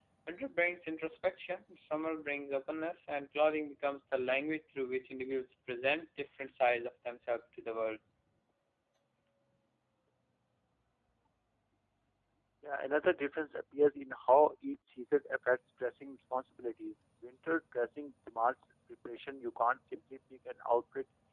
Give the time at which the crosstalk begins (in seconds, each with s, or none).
none